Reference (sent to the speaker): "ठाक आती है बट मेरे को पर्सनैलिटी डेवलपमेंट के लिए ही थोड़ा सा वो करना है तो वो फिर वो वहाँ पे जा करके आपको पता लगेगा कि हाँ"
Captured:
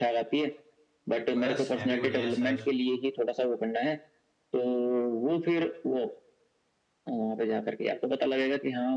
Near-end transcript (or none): बस मैं भी बढ़िया सर